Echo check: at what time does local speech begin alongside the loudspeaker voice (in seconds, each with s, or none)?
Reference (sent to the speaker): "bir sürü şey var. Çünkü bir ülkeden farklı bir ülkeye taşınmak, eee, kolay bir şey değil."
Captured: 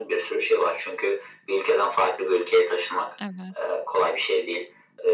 3.2 s